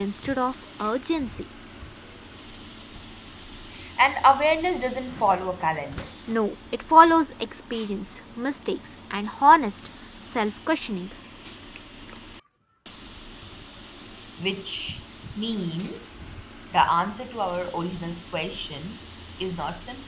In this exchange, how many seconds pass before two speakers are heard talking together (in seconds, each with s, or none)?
none